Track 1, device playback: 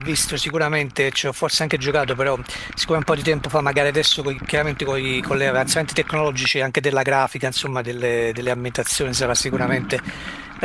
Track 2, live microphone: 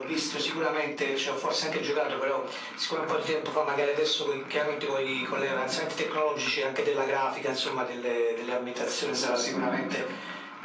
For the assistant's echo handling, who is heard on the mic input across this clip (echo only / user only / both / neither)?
echo only